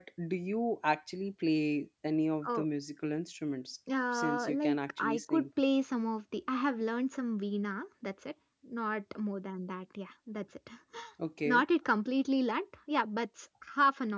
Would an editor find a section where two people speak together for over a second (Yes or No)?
Yes